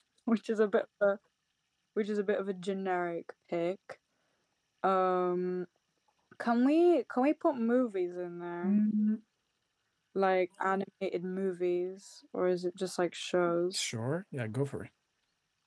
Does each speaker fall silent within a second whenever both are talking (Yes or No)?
Yes